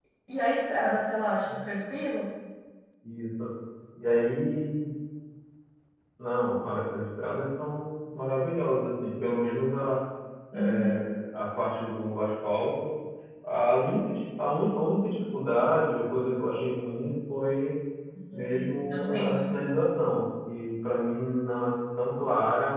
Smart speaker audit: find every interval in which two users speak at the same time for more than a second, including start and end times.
18.3-19.6

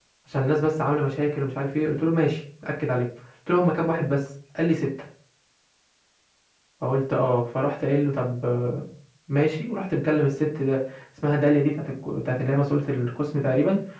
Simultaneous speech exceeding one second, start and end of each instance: none

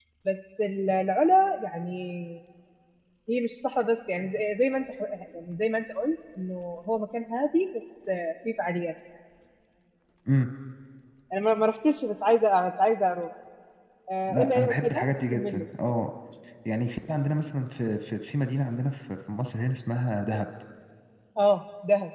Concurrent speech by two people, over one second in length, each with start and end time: 14.3-15.7

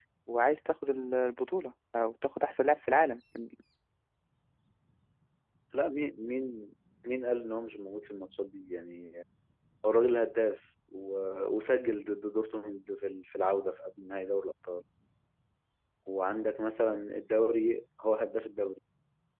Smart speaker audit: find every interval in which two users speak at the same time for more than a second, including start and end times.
none

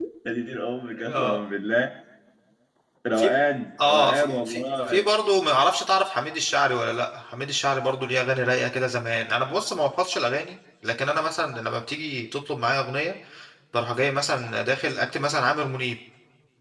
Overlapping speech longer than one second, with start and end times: 3.8-5.1

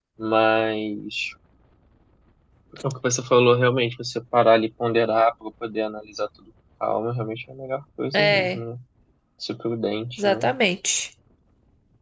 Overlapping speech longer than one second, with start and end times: none

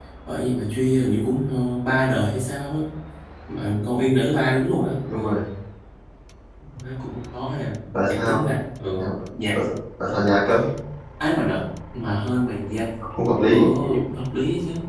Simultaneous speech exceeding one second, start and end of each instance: none

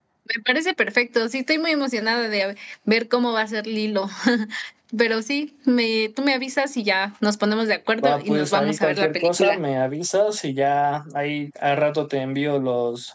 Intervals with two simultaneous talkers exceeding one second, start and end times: 8.0-9.6

